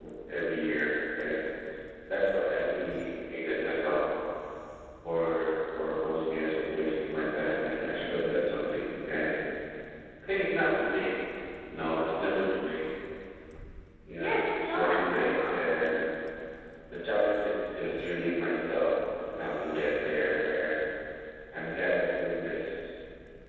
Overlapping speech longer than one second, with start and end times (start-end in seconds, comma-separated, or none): 14.2-15.6